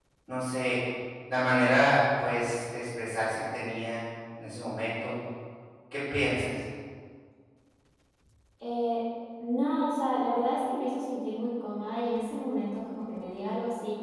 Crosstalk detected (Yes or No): No